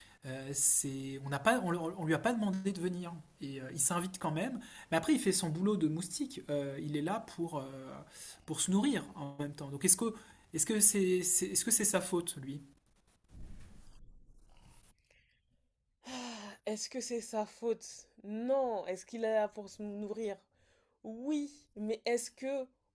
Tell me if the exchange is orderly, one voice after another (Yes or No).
Yes